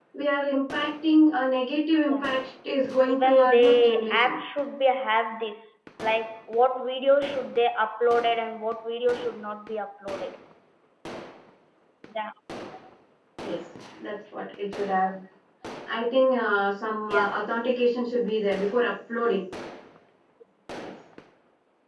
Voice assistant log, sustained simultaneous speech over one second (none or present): present